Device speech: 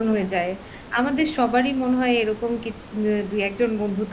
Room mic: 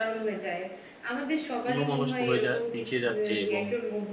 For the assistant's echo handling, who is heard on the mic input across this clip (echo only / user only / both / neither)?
both